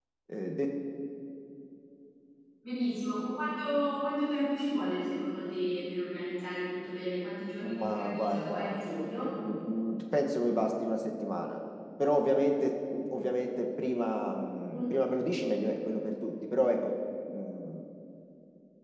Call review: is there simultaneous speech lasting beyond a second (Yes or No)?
Yes